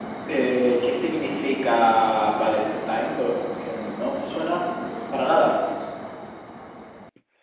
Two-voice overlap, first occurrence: none

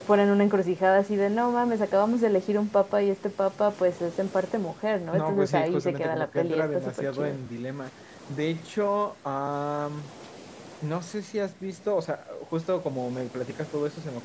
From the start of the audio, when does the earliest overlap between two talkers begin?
5.1 s

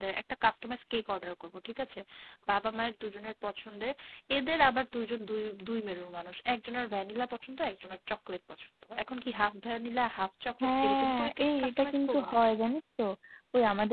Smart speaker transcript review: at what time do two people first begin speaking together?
10.6 s

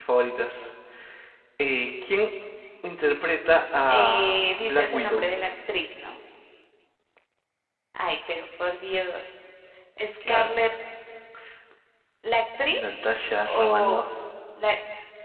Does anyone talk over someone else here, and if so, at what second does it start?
3.9 s

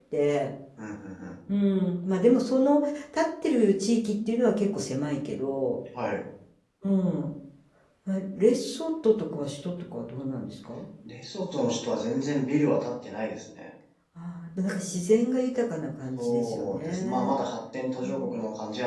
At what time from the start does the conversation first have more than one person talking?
16.2 s

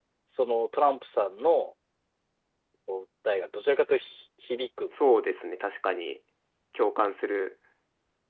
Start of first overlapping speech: none

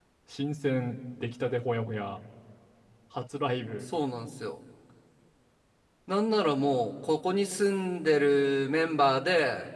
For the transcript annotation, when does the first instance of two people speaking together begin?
none

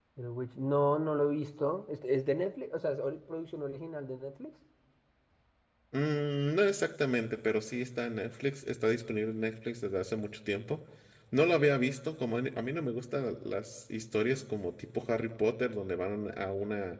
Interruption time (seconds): none

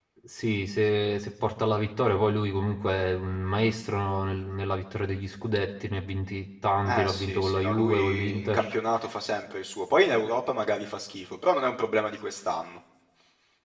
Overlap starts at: 6.9 s

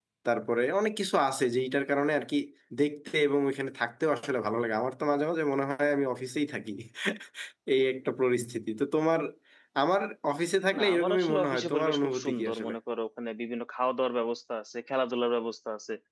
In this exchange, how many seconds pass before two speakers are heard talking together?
10.7 s

